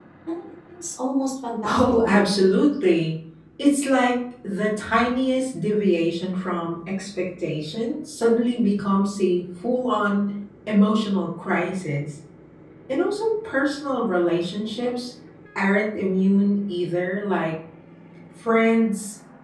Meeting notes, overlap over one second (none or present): none